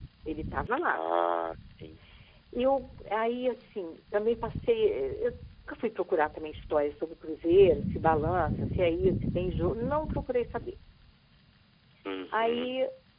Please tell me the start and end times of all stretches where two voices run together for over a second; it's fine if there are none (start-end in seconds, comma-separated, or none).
none